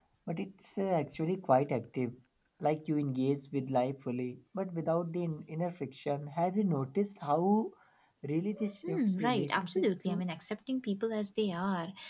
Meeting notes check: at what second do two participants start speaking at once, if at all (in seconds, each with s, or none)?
8.9 s